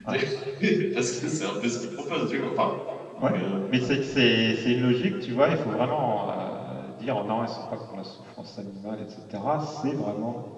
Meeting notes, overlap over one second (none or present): none